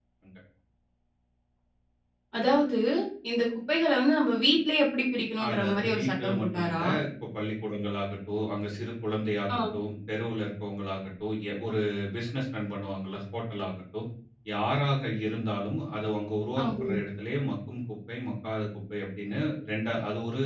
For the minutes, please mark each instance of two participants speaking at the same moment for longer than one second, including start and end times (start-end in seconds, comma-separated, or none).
5.5-6.8